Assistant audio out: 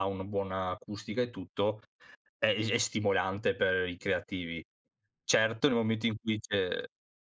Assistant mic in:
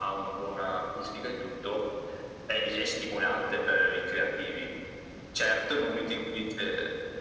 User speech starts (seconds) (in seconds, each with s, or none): none